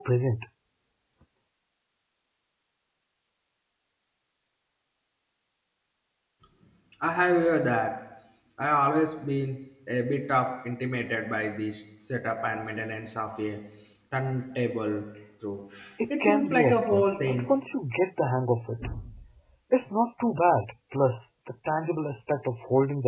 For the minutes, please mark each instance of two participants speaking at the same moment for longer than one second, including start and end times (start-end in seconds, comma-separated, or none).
16.2-17.5